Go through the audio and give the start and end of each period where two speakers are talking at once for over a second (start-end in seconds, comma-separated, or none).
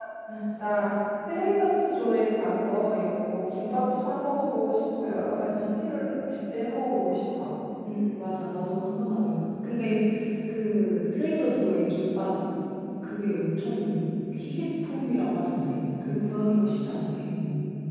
none